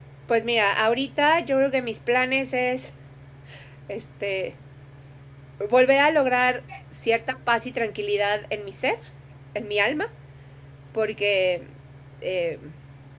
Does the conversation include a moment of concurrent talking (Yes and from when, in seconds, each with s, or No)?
No